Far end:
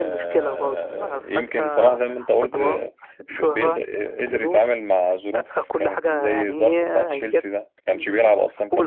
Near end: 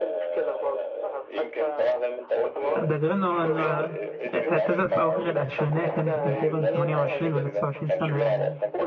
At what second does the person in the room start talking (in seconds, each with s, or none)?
2.8 s